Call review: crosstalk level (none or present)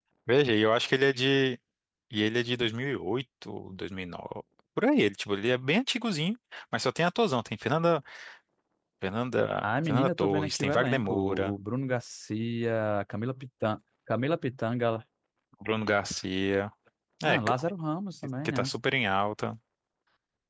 present